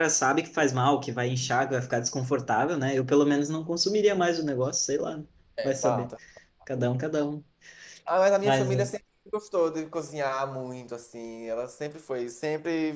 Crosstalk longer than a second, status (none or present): none